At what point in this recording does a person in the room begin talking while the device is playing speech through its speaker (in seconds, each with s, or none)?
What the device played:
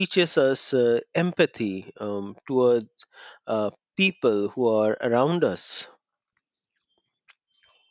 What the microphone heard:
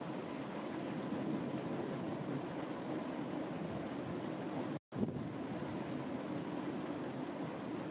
none